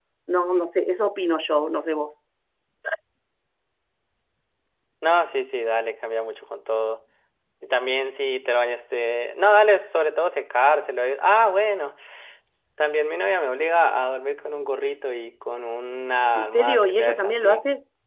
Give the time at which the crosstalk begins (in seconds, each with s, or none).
16.4 s